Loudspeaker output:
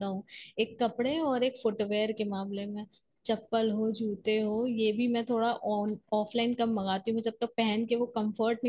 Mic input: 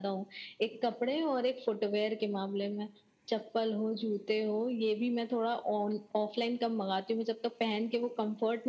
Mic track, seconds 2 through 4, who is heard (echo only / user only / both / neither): echo only